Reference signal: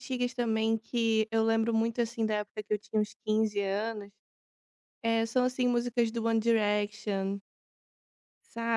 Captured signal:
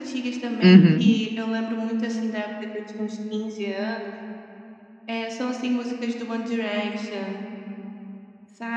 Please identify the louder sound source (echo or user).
user